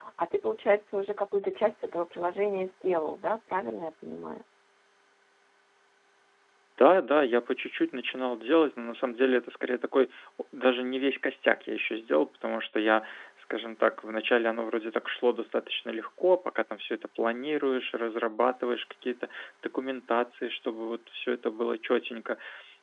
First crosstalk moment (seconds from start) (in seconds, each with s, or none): none